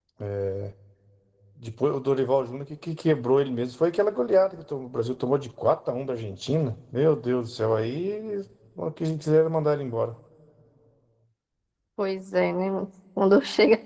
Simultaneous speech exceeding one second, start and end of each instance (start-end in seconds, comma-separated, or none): none